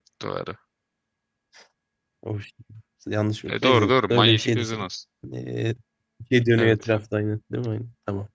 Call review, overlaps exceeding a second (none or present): present